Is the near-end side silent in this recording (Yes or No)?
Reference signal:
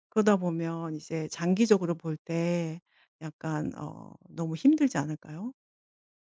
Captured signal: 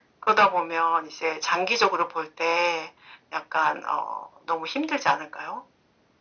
Yes